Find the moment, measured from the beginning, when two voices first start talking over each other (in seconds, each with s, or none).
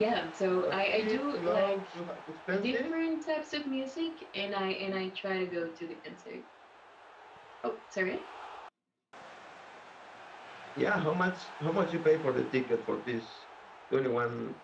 0.5 s